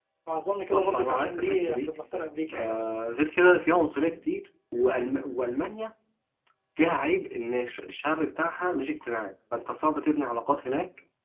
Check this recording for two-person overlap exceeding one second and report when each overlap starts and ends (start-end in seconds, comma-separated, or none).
0.7-2.0